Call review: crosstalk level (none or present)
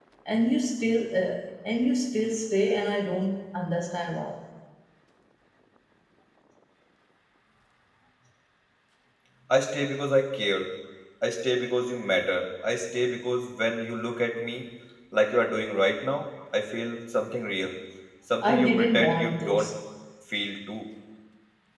present